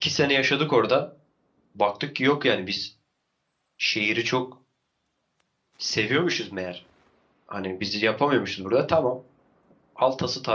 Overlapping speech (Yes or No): No